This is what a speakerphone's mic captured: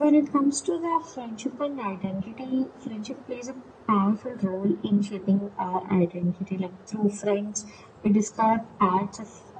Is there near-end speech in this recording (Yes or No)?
No